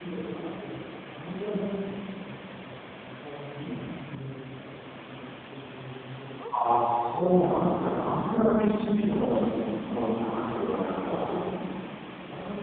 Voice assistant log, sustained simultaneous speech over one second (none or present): none